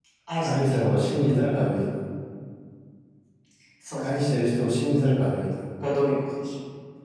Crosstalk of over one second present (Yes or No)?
No